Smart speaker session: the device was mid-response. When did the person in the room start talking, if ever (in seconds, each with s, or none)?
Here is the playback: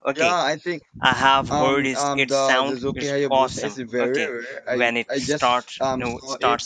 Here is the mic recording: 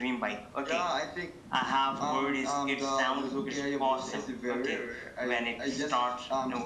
none